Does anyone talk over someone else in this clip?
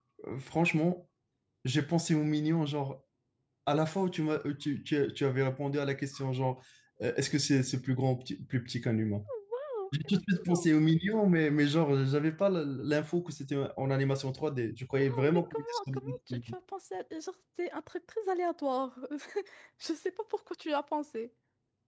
Yes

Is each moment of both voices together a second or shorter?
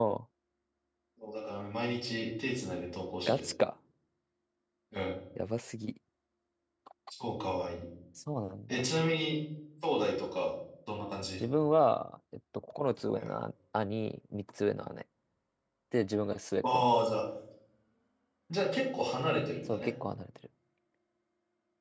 Yes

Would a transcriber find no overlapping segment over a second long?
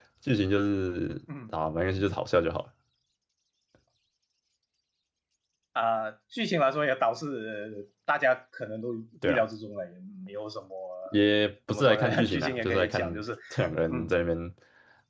No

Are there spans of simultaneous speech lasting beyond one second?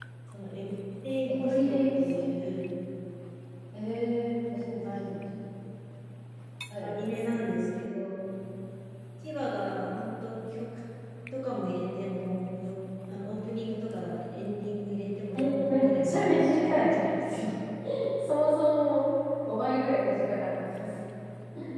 Yes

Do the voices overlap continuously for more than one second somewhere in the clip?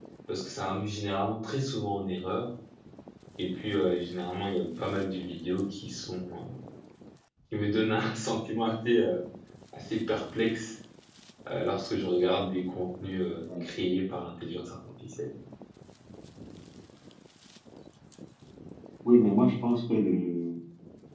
No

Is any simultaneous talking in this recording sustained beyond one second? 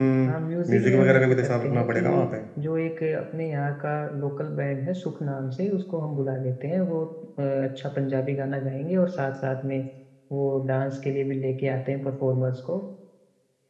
Yes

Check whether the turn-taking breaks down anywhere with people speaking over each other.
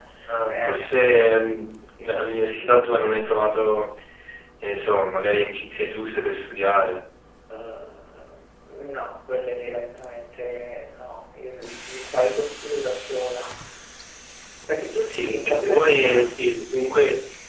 Yes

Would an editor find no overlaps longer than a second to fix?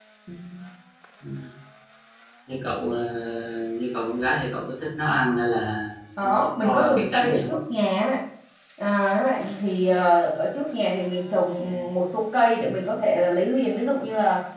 No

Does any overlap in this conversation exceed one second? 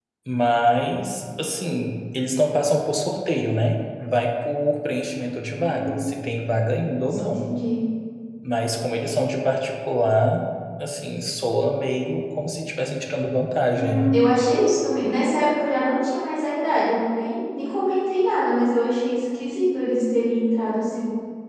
No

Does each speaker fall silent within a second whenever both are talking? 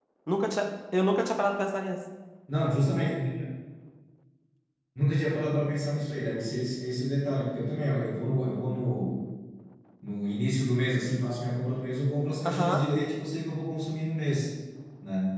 Yes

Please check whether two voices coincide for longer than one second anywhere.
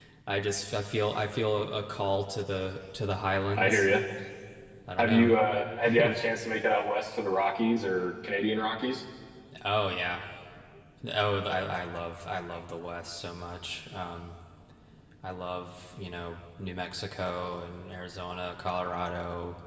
No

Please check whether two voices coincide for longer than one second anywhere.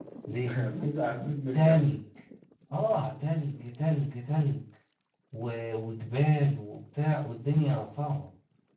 No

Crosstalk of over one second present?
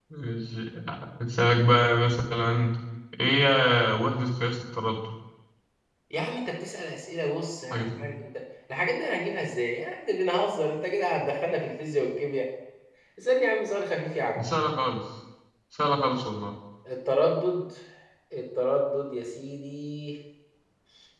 No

